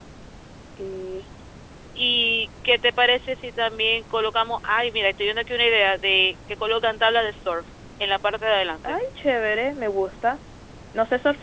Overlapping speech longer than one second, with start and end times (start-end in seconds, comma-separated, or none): none